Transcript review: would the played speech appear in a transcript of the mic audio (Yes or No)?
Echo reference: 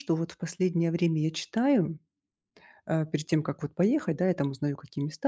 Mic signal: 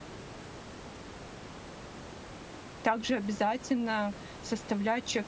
No